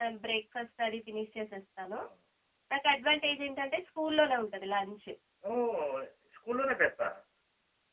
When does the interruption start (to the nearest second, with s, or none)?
none